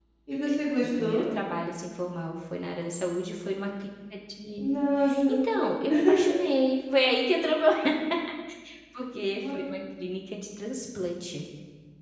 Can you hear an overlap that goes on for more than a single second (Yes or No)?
No